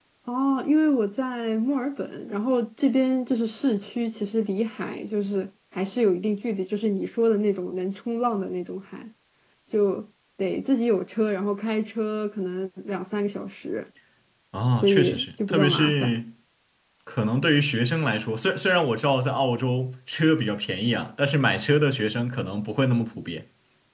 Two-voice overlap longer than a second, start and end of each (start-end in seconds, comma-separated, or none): 14.8-16.2